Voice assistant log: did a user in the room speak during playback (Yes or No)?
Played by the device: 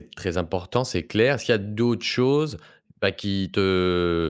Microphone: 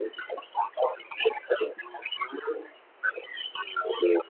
No